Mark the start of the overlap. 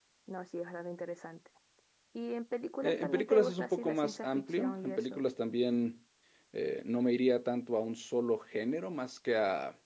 3 s

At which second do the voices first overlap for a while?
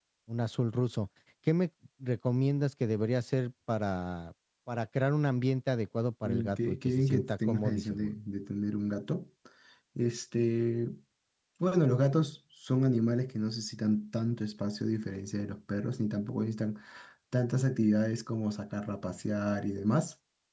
6 s

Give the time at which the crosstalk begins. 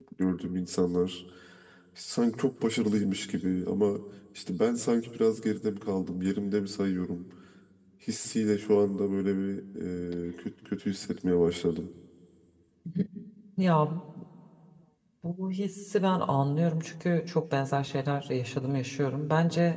none

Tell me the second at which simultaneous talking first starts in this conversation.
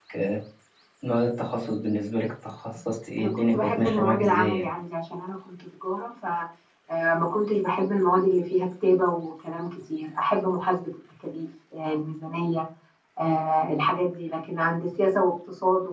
3 s

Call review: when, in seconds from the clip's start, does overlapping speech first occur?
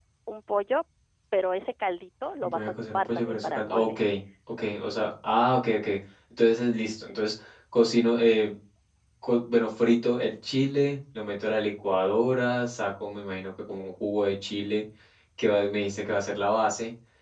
2 s

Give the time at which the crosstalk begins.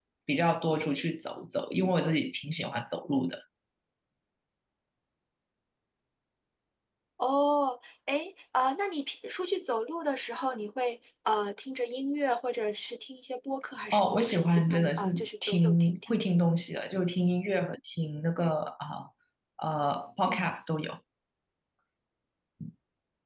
14 s

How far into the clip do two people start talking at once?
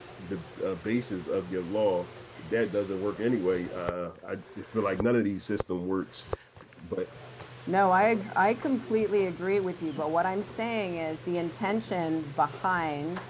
none

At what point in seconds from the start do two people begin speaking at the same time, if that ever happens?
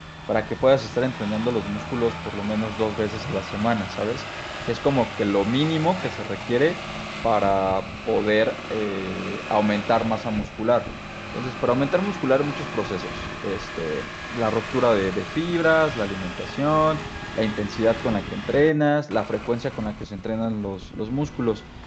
none

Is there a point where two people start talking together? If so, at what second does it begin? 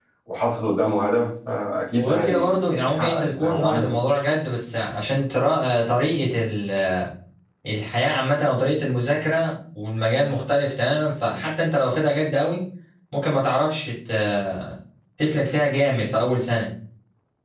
2 s

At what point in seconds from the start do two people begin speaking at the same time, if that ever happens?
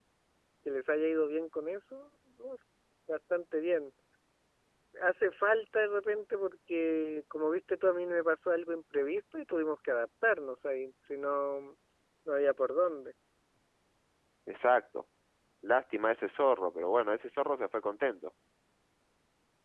none

